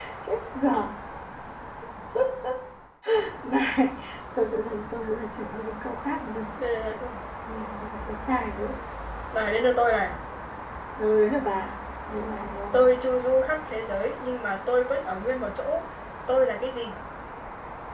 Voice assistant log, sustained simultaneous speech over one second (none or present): none